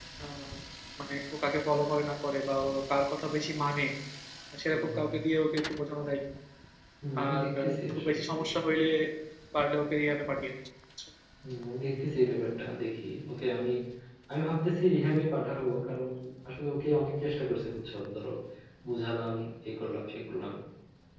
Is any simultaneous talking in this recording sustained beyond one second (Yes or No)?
Yes